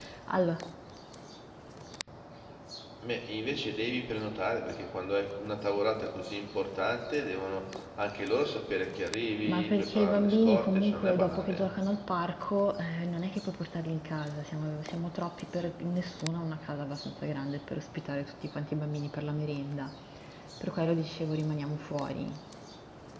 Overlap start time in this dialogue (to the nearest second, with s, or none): 9 s